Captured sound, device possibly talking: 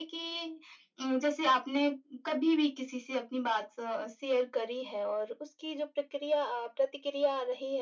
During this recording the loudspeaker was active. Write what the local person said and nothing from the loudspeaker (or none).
none